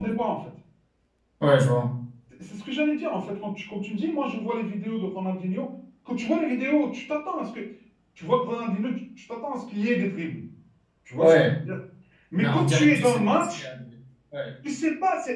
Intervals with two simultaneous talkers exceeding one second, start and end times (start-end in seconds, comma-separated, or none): 12.4-13.7